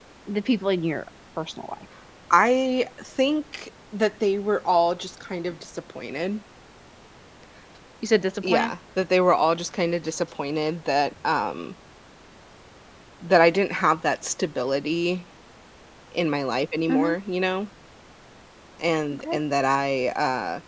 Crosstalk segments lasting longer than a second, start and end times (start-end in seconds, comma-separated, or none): none